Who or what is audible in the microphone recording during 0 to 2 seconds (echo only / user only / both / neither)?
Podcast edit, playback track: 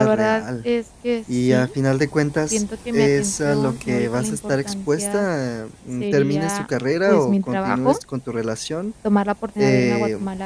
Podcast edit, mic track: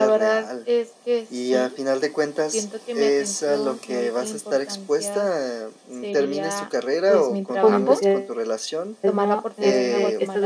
echo only